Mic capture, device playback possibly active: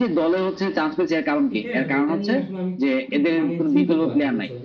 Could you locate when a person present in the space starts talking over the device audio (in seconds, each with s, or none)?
1.5 s